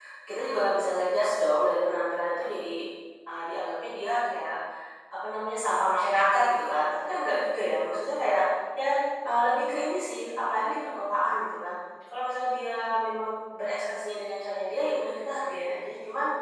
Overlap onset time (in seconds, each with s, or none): none